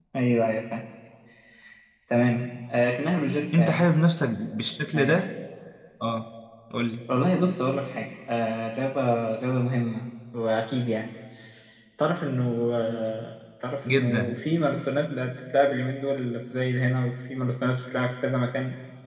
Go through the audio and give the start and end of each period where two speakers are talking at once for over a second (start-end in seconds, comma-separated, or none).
none